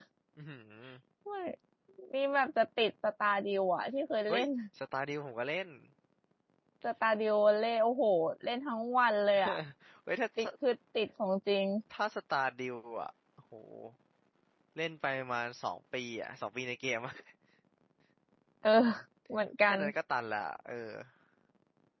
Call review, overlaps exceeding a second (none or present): none